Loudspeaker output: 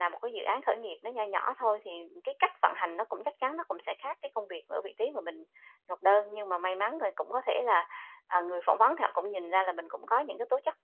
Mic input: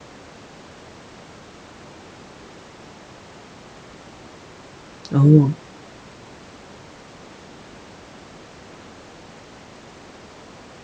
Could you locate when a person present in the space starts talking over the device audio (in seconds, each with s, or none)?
5.1 s